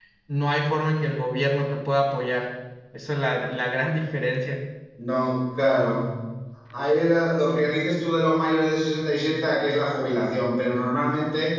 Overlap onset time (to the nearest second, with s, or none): none